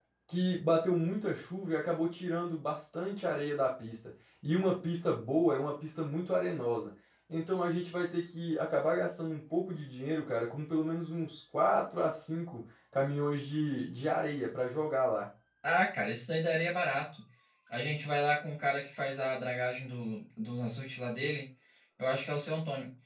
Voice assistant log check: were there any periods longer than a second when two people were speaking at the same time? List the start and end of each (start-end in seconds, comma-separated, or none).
none